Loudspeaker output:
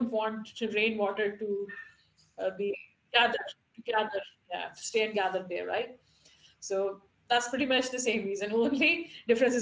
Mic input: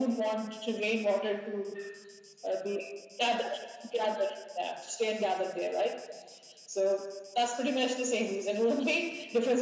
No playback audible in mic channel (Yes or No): No